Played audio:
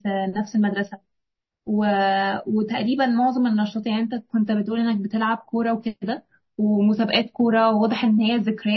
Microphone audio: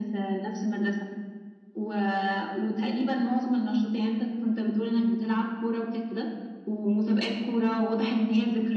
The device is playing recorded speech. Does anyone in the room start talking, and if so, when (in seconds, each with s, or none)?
none